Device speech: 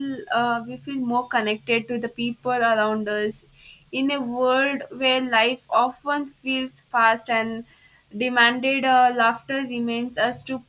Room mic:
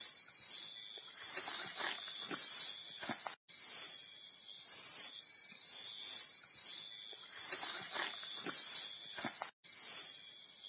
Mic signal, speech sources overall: neither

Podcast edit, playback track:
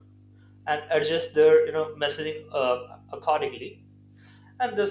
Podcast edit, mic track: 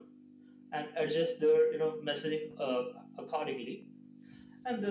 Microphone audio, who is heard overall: echo only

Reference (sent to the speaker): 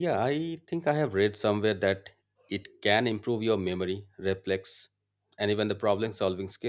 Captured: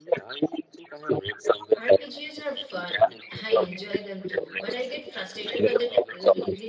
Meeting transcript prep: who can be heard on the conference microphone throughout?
both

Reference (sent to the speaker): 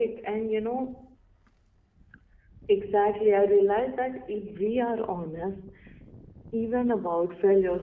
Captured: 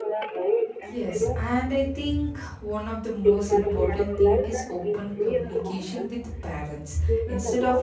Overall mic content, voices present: both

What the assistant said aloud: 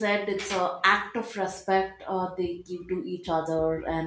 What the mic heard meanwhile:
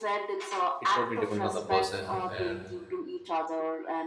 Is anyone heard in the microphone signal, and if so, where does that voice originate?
both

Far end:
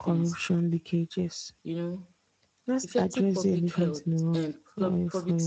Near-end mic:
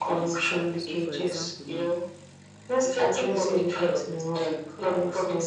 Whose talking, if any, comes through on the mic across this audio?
both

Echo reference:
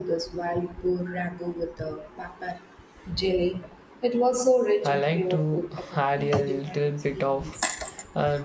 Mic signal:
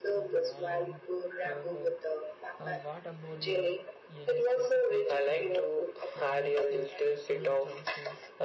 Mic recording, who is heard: both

